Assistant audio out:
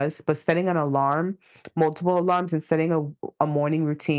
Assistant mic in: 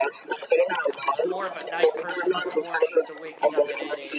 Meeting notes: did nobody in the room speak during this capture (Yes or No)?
No